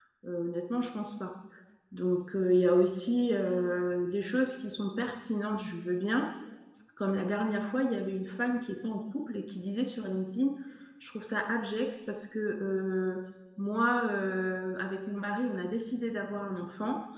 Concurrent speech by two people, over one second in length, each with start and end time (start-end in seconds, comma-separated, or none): none